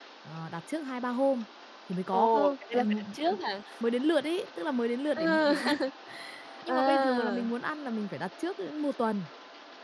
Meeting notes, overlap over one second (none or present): present